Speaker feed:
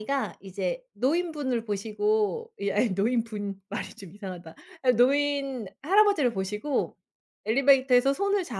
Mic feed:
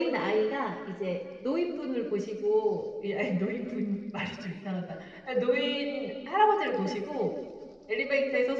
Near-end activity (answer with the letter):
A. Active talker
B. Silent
B